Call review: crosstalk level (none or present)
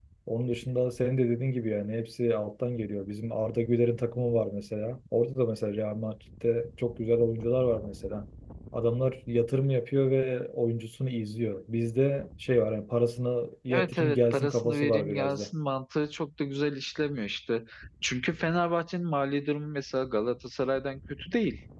present